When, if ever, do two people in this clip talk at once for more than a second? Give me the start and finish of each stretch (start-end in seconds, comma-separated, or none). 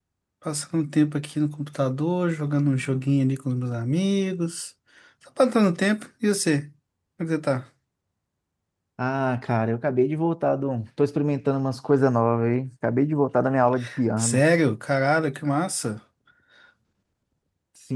none